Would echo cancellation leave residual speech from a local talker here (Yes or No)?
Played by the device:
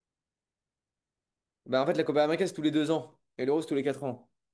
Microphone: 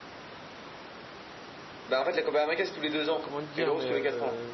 Yes